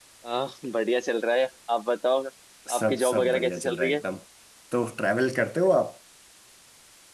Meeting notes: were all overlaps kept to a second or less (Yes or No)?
No